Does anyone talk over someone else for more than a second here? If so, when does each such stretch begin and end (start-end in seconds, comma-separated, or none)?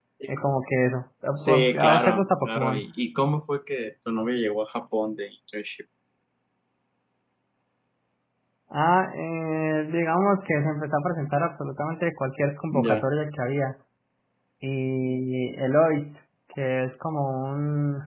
1.4-2.8